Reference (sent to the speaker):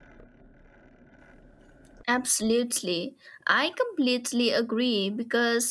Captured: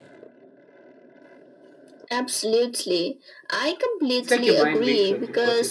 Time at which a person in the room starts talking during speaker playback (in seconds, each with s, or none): 4.2 s